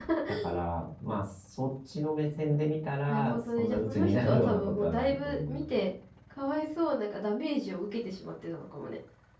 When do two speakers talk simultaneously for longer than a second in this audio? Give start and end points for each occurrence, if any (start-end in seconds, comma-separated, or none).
3.1-5.7